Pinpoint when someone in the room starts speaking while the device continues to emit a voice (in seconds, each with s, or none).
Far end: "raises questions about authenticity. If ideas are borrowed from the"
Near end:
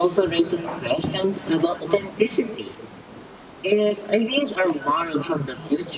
none